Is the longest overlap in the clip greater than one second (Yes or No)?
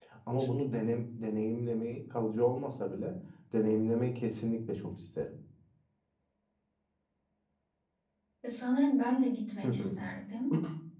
No